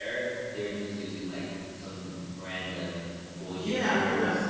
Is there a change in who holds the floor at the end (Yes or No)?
Yes